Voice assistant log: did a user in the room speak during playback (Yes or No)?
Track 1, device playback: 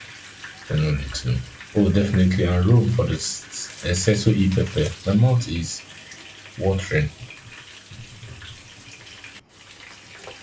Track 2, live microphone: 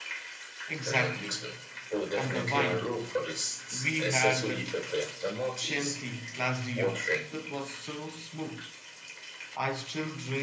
Yes